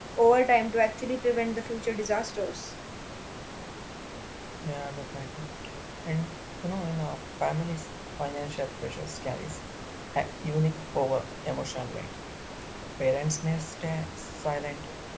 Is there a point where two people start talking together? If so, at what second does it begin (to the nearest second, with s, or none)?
none